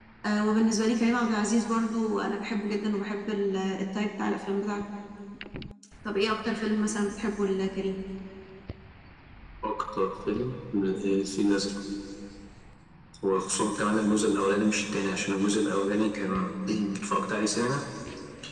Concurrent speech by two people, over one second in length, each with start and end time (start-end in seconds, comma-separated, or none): none